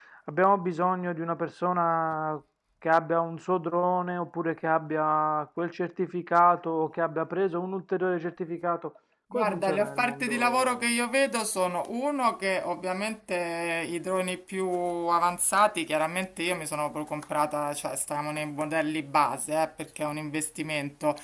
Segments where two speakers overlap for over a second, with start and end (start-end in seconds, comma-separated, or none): 9.3-10.9